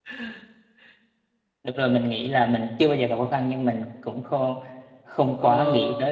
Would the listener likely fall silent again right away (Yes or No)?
No